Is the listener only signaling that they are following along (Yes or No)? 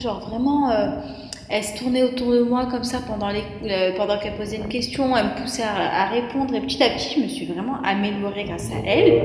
No